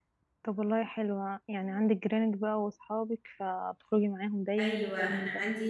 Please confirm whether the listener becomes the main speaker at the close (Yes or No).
Yes